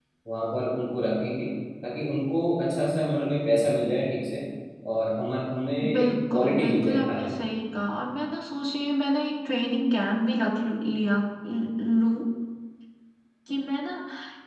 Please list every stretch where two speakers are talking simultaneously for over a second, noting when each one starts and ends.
6.0-7.5

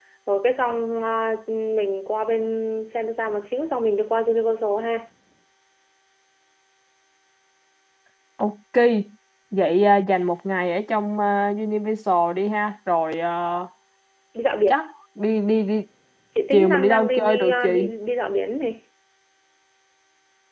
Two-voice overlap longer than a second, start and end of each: 16.5-17.9

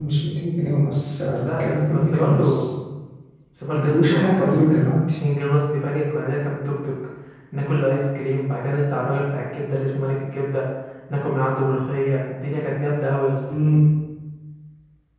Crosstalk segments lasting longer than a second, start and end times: 1.4-2.6, 3.7-5.0

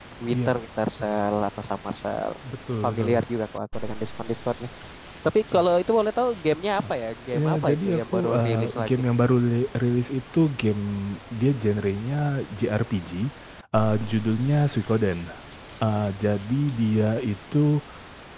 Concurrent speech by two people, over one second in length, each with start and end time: 7.4-8.9

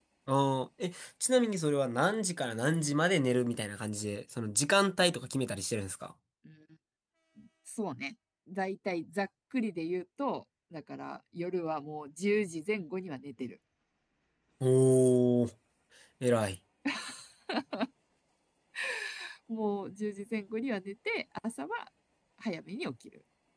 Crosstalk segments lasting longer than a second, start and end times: none

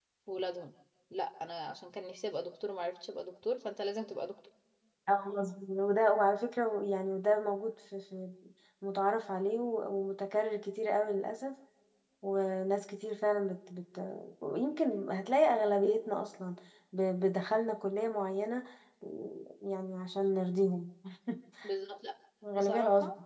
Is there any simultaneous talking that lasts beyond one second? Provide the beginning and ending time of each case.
none

